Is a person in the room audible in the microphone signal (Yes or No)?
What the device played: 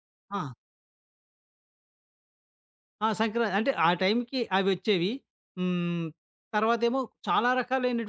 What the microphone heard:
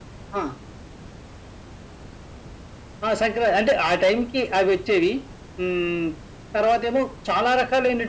No